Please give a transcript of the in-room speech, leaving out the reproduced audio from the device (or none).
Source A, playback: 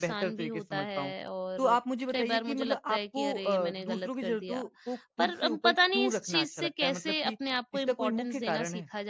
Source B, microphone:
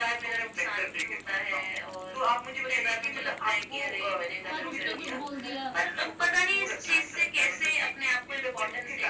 पर उसने कुछ बोल दिया,